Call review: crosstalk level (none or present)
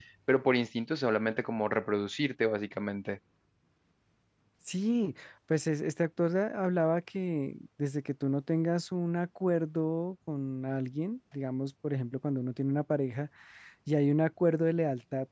none